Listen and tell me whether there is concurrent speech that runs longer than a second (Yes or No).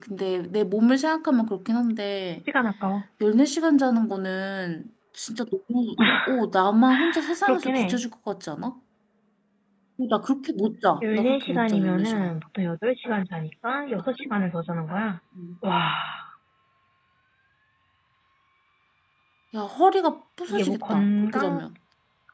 Yes